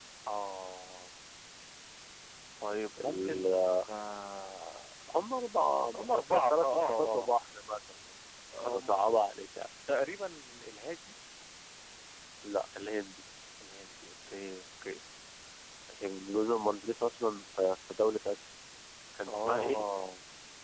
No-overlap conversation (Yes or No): No